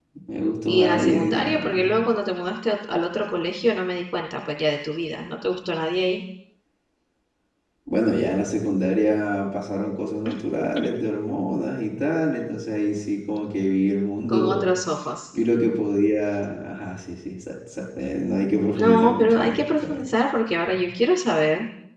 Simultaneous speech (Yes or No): Yes